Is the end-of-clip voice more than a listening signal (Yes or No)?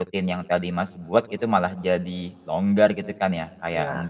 No